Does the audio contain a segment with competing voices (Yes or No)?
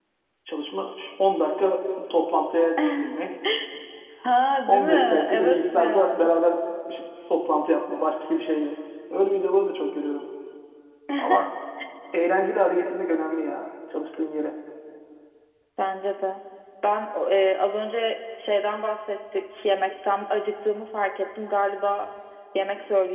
Yes